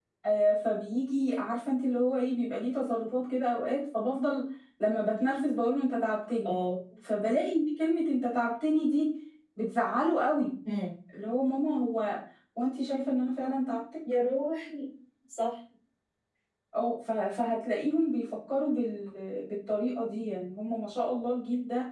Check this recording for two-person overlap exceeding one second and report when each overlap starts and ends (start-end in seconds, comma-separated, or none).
none